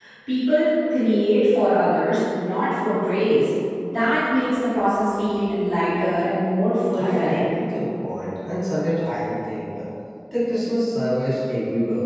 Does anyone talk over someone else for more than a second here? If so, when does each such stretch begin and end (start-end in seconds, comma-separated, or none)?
none